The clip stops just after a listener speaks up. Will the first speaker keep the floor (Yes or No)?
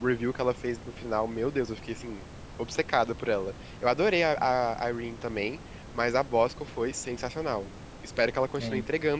Yes